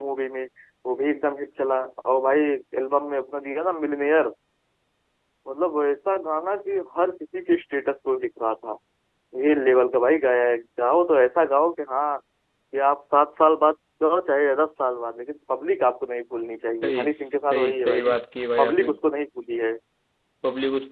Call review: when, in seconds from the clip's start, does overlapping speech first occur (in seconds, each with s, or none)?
16.8 s